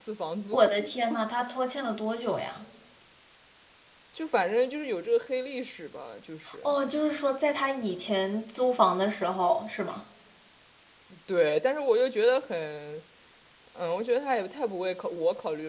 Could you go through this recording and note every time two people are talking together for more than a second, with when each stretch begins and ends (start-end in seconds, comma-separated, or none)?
none